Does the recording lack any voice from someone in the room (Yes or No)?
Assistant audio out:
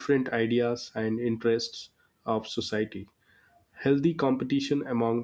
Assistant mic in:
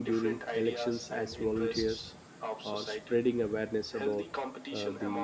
No